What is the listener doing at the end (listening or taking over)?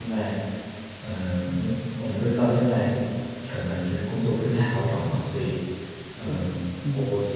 listening